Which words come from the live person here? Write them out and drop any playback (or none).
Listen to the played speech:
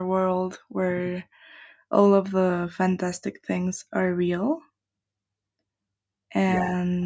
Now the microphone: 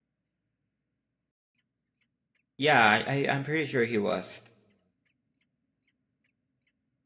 Yeah, I, I I'm pretty sure he was.